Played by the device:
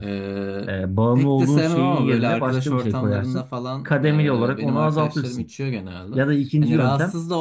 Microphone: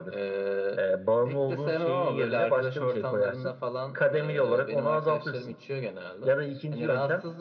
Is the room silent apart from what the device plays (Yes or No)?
Yes